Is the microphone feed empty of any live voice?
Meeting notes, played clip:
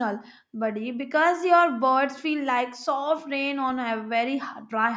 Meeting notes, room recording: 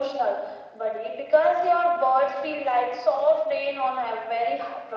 Yes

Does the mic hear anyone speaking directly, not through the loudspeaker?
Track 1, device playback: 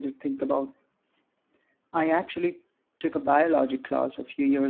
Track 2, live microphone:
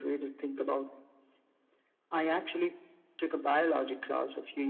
No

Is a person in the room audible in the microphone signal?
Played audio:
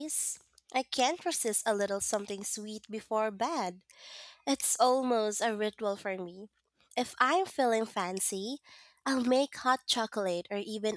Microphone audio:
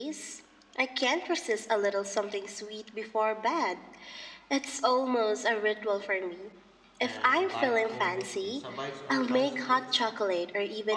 Yes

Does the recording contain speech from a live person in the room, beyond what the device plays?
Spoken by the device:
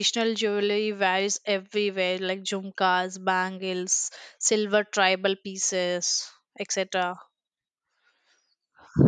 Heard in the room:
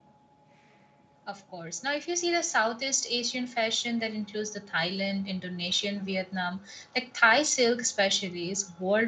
Yes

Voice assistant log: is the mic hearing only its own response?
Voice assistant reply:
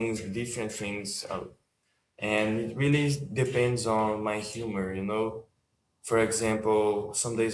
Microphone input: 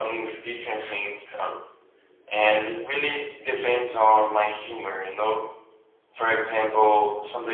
Yes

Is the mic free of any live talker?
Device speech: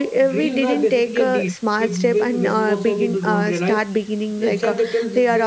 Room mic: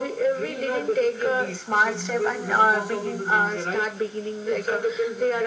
Yes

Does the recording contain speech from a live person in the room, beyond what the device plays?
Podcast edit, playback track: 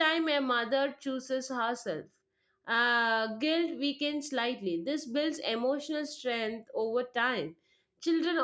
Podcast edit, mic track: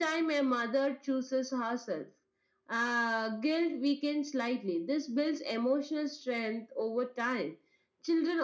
No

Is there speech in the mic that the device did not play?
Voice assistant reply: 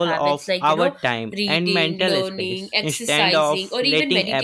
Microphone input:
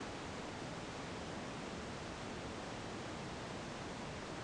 No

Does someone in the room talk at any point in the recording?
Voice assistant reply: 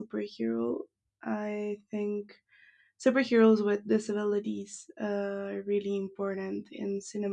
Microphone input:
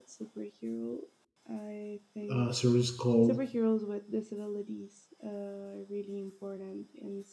Yes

